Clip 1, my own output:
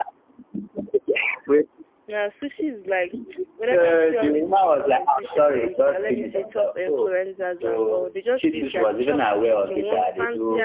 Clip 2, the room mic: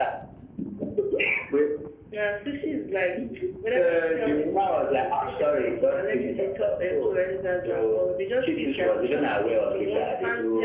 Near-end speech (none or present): none